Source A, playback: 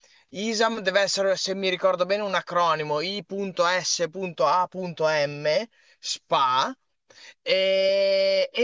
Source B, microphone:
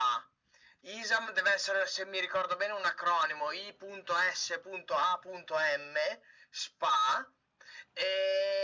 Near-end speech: none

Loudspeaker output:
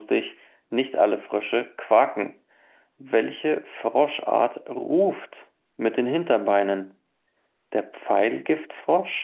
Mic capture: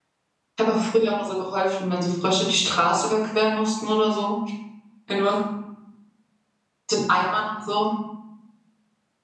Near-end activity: present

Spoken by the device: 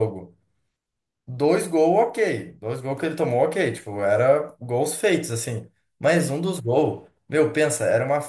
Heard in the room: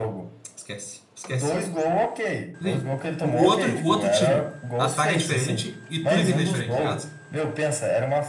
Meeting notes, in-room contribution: present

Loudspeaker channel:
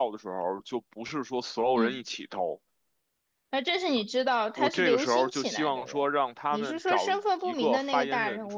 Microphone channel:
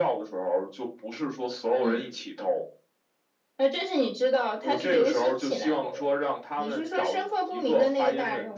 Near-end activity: none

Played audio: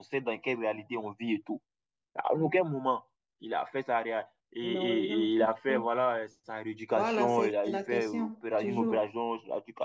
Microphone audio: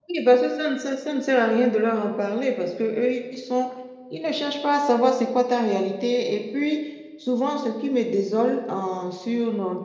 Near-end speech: present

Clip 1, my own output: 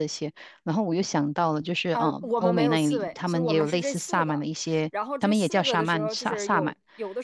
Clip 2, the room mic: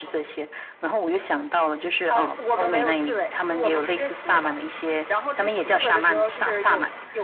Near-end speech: none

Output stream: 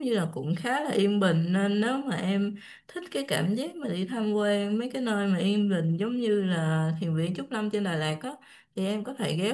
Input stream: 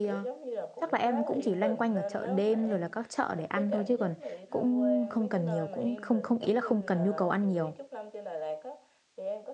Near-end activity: present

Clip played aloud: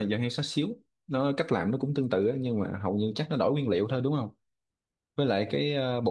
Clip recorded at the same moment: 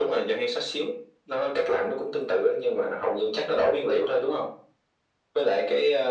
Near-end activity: none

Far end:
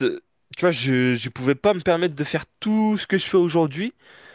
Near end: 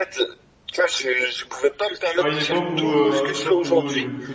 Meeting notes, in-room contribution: present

